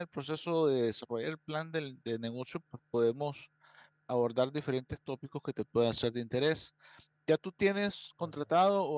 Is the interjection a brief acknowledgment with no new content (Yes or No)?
Yes